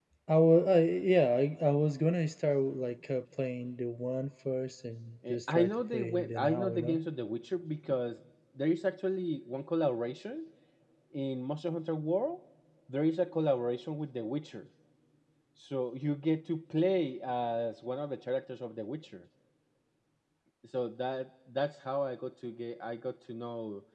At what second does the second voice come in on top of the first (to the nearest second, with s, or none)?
5 s